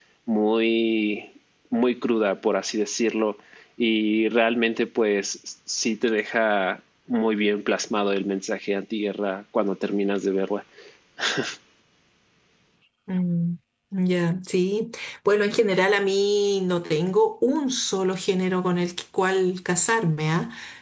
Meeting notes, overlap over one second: none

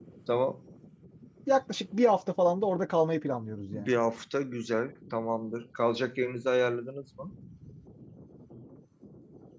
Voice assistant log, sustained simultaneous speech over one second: none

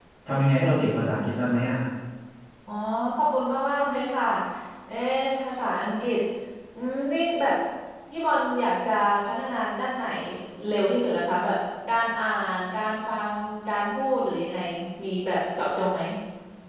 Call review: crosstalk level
none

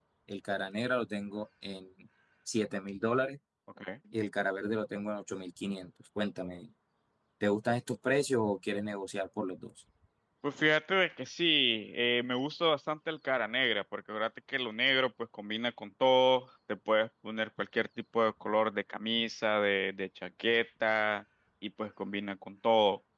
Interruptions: none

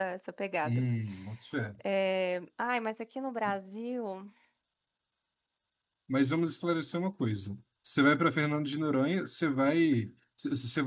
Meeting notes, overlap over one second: none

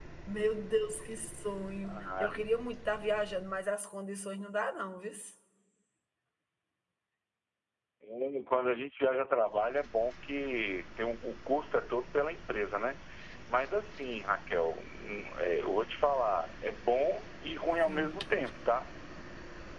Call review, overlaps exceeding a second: none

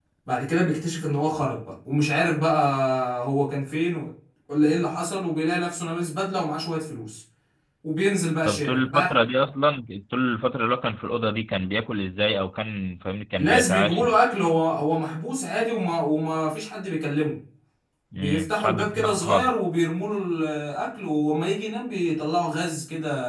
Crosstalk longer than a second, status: present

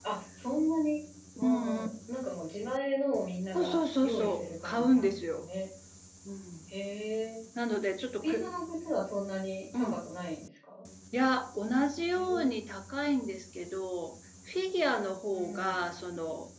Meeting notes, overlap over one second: present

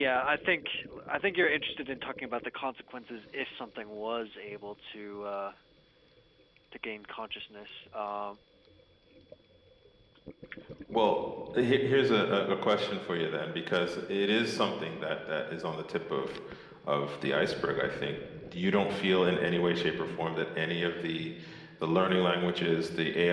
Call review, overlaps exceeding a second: none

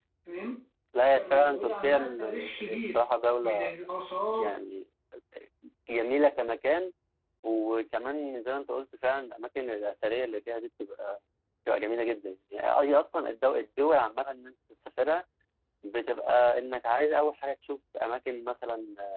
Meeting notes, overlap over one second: present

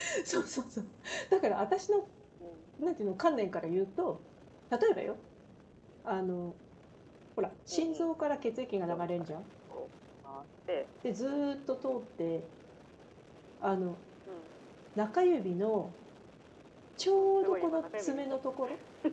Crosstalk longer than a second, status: present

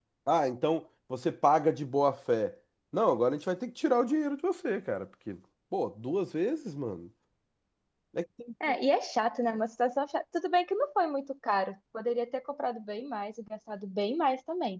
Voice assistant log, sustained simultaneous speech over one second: none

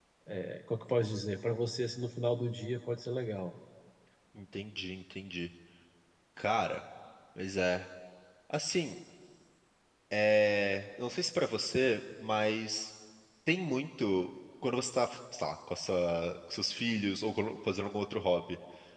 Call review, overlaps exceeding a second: none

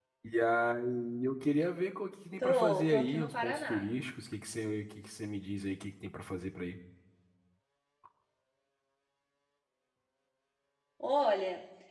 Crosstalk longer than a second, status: present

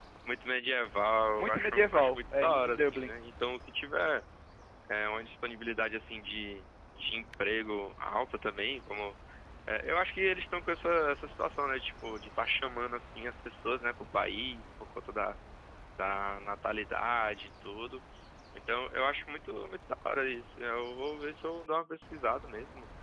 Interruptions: present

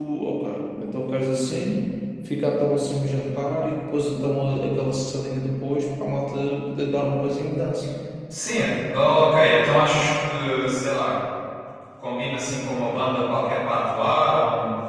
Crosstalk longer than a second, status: none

